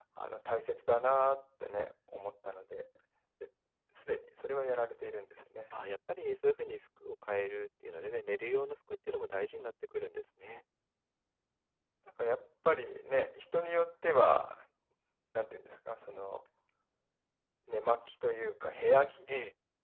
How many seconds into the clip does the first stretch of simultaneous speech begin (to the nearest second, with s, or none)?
none